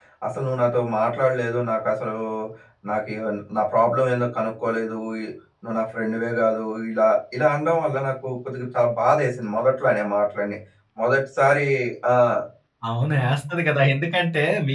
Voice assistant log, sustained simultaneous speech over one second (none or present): none